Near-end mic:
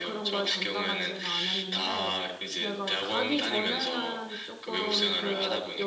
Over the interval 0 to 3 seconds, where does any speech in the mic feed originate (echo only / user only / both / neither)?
both